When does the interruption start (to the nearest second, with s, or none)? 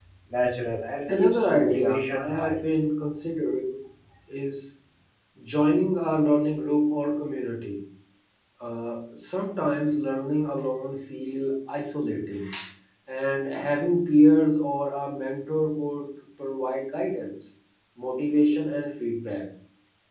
1 s